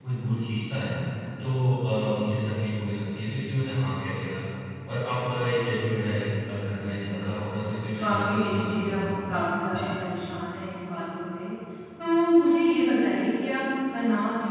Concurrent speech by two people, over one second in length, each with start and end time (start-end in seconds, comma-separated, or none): 8.0-9.9